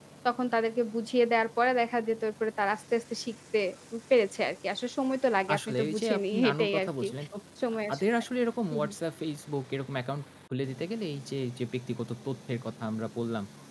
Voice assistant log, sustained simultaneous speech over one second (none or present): present